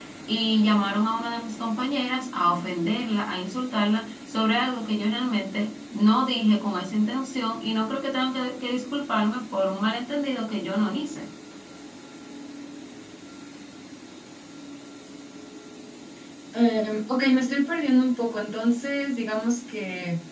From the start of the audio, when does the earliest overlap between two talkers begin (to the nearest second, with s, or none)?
none